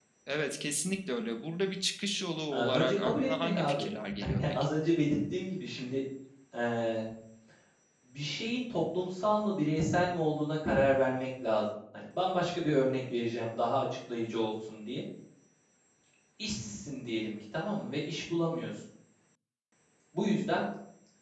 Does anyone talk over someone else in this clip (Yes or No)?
Yes